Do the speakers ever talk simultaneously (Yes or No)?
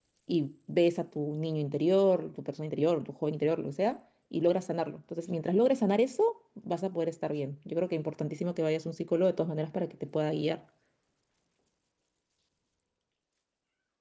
No